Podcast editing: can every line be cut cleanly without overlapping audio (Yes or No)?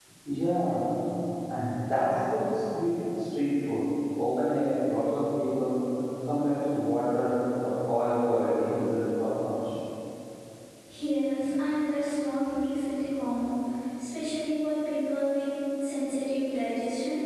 Yes